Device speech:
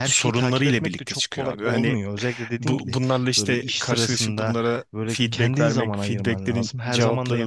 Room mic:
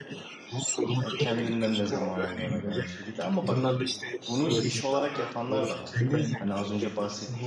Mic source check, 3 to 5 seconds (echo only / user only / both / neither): both